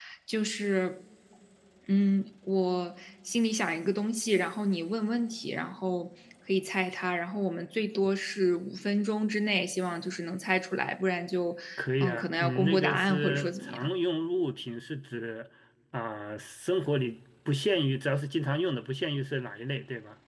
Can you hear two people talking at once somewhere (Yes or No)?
Yes